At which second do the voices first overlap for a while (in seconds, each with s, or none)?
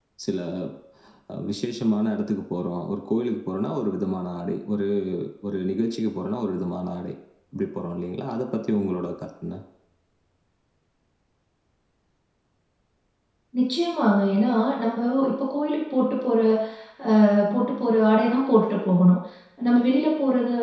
none